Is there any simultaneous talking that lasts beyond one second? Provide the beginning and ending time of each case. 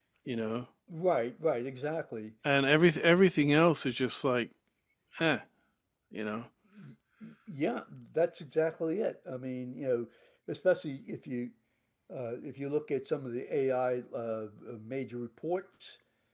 none

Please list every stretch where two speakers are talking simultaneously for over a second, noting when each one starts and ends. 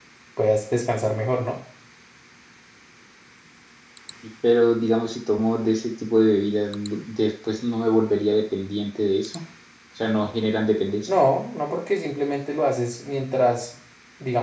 none

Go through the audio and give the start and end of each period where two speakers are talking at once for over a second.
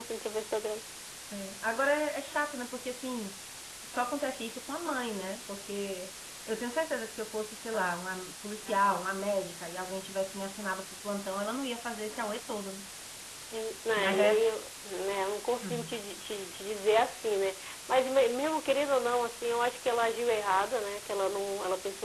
none

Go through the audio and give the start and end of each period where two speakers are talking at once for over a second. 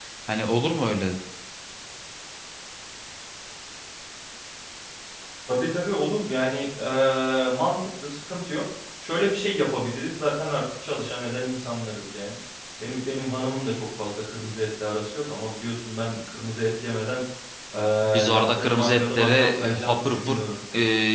18.3-20.4

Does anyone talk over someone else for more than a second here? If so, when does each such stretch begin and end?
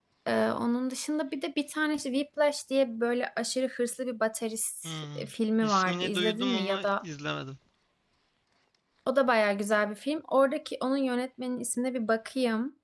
5.6-7.0

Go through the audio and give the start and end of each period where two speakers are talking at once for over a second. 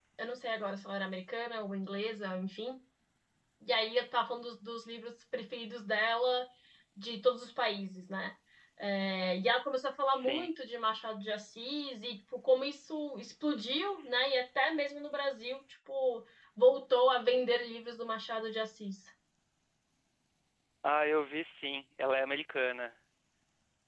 none

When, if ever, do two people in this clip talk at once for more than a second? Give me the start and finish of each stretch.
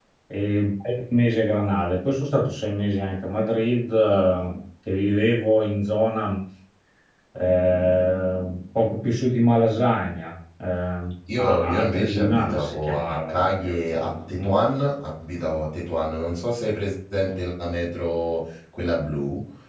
11.4-14.6

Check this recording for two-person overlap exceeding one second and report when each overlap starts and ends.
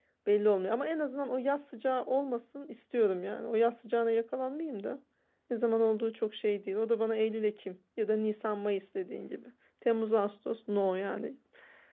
none

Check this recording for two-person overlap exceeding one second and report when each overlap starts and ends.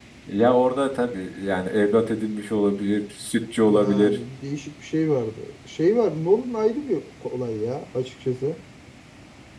none

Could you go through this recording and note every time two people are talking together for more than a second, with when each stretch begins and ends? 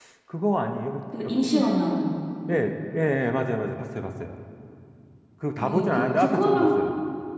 5.6-6.8

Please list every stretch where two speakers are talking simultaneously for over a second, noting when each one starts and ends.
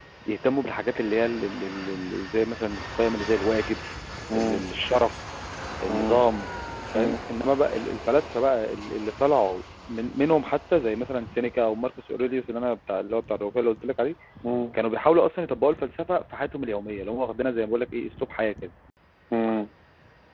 none

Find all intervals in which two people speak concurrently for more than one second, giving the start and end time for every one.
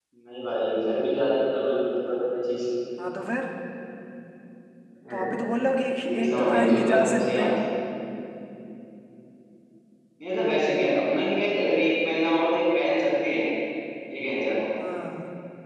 6.2-7.5

